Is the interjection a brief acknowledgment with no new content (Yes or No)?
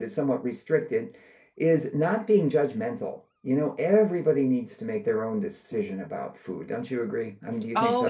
No